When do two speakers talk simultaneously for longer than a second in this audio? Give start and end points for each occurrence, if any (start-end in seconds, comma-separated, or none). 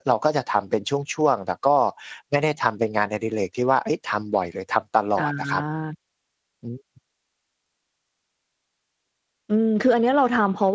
none